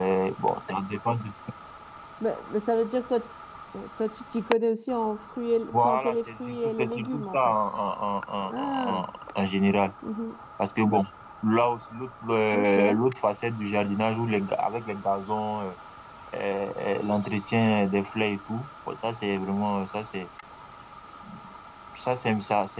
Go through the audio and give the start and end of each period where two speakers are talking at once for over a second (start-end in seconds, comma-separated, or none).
5.7-7.5